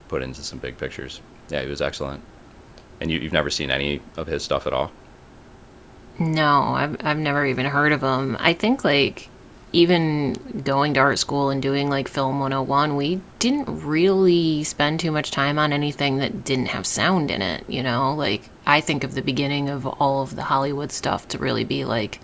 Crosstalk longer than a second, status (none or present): none